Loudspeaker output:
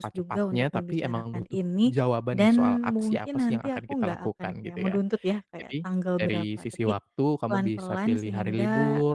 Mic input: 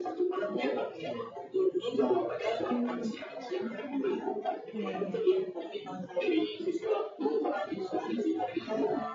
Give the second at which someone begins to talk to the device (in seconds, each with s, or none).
4.7 s